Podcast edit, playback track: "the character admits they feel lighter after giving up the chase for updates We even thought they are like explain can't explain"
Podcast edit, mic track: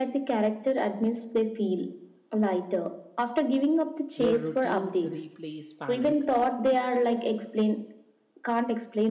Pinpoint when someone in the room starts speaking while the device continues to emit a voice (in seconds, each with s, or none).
4.1 s